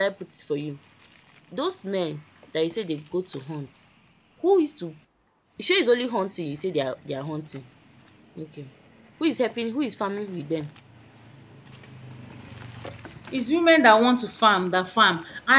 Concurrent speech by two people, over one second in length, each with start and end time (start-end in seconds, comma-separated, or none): none